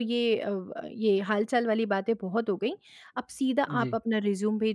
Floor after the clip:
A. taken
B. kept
B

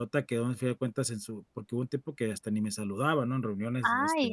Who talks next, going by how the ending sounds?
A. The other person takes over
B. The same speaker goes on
A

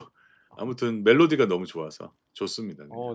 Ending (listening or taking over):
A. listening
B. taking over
B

